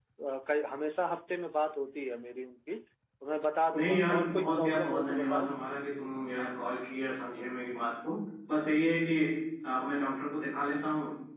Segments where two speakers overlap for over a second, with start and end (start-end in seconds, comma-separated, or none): 3.7-5.5